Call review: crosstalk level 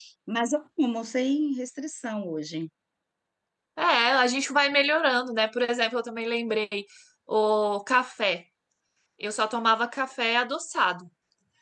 none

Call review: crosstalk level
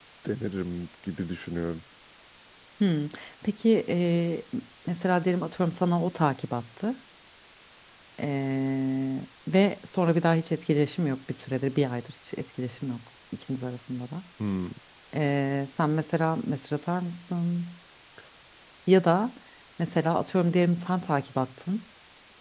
none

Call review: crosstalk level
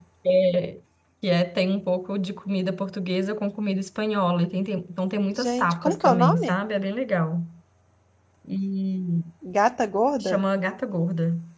present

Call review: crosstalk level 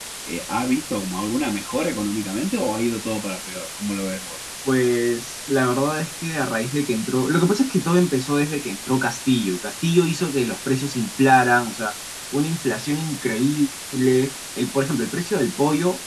none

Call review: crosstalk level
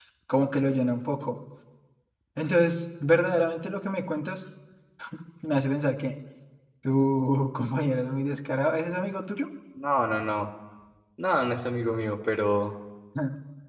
none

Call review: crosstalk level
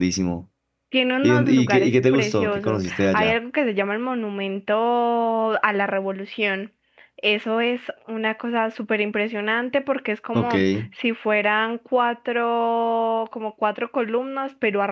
present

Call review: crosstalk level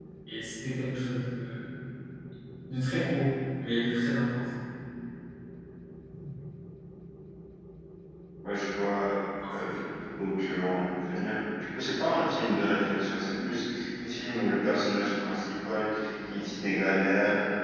none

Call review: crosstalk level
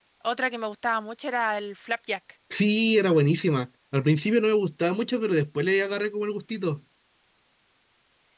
none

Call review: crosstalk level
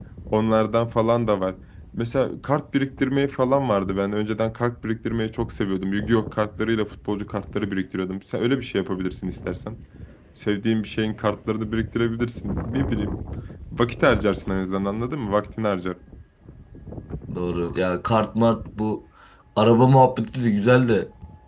none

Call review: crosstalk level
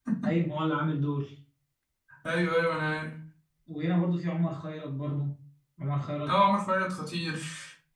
none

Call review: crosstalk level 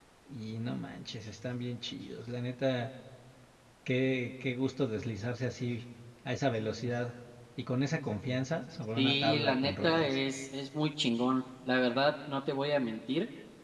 present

